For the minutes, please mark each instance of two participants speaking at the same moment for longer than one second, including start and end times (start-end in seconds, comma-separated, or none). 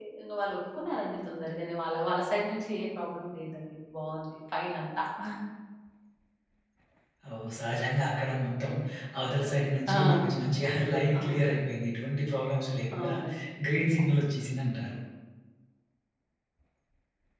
none